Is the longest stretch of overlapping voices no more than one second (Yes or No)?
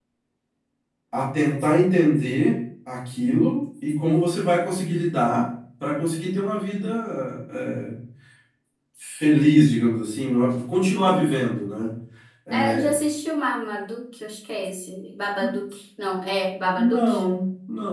Yes